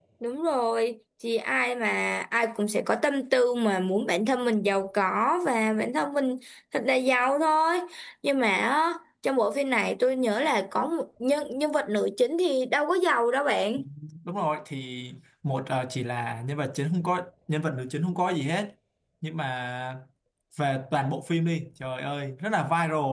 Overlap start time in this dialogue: none

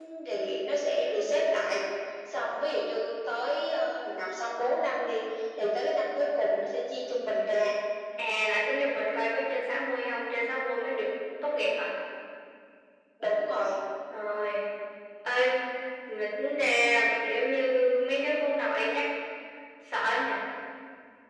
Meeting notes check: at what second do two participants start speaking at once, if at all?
none

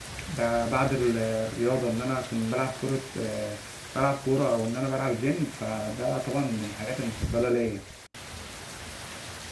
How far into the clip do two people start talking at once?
none

